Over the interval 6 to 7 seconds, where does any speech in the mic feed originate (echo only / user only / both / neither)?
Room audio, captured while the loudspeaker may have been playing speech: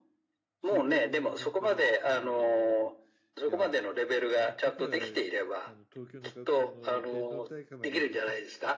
both